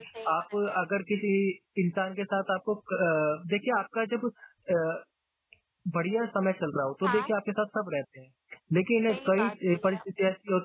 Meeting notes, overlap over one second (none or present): present